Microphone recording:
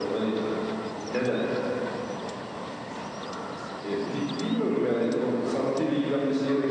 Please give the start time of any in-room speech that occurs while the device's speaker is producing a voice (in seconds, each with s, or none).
none